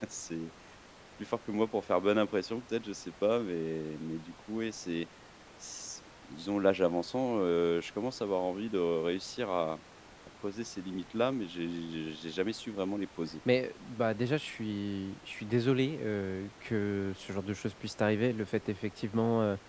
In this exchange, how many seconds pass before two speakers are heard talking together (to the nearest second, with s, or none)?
none